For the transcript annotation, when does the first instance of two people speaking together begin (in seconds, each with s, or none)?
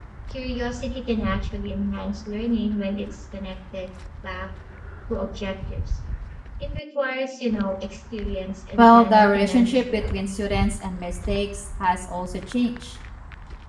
8.8 s